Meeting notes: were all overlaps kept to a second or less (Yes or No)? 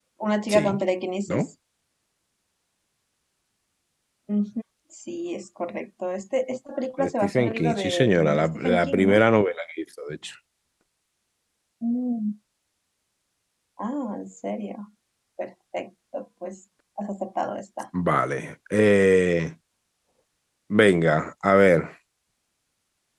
No